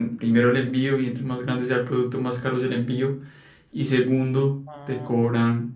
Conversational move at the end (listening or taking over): listening